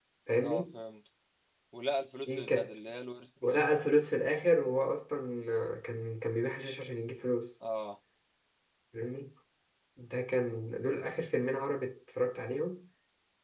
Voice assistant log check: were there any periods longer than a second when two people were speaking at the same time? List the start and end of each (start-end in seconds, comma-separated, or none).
none